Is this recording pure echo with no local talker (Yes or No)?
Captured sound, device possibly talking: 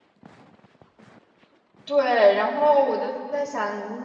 No